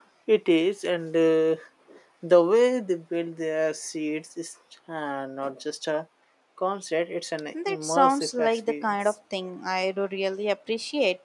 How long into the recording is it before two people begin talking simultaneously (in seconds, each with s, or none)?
7.5 s